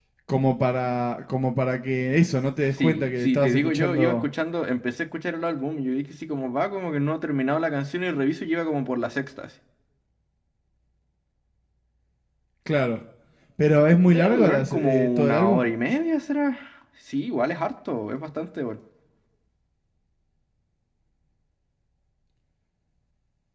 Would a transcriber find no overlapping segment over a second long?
No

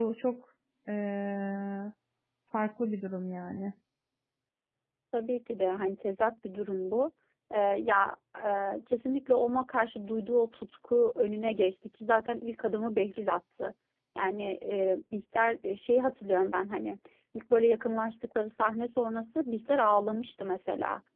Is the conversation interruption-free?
Yes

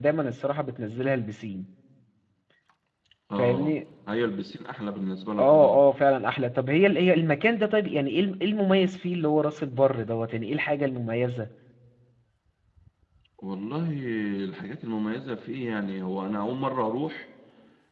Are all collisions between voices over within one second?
Yes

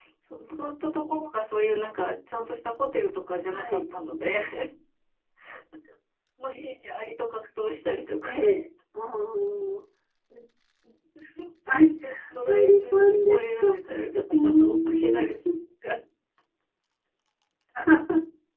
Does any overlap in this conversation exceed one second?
Yes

